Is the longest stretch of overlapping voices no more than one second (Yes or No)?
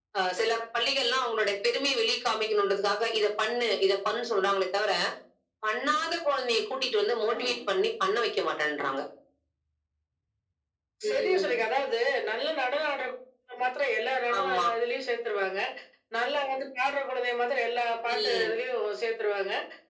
Yes